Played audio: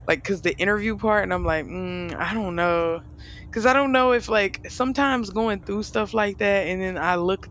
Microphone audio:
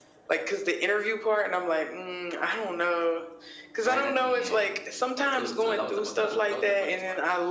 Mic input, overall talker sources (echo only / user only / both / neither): both